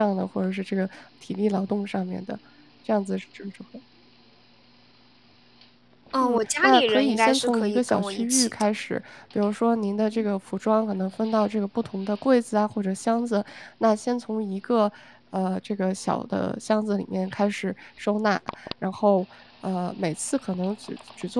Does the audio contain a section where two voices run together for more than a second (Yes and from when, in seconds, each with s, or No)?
Yes, from 6.2 s